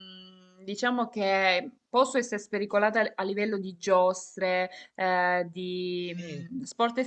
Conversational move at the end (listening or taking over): listening